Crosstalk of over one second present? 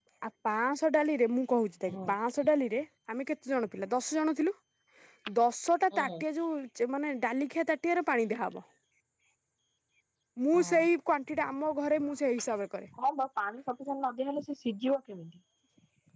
No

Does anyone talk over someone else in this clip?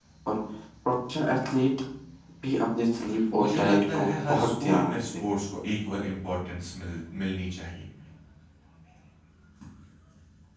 Yes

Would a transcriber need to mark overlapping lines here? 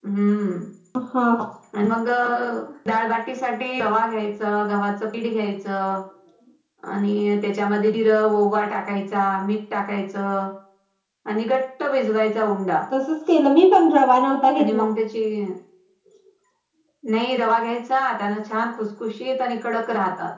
No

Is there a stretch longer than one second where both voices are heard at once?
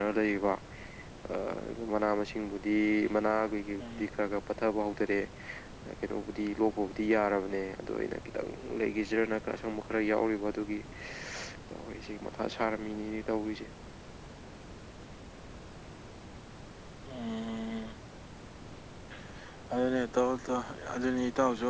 No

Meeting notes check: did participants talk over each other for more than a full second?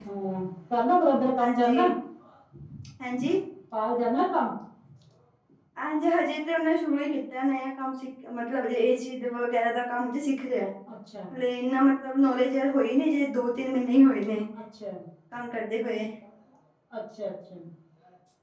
No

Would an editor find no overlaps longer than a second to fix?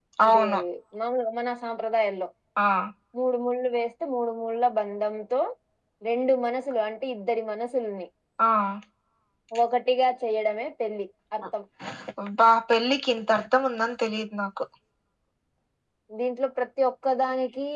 Yes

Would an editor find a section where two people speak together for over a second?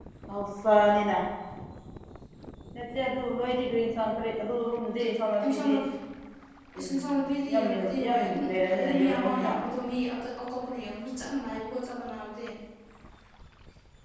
Yes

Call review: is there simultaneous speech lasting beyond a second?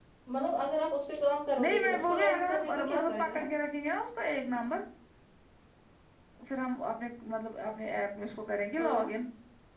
Yes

